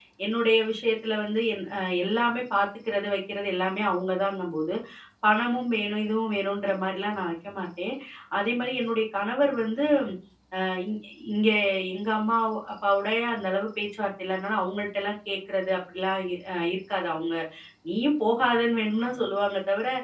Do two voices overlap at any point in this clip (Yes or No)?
No